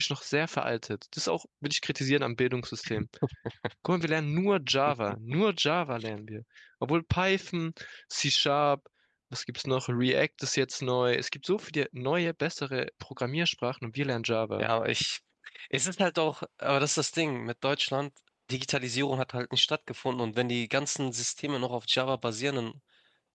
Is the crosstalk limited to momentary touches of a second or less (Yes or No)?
Yes